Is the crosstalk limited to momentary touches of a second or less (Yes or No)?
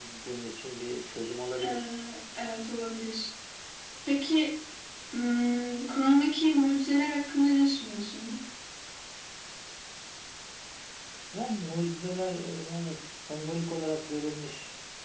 Yes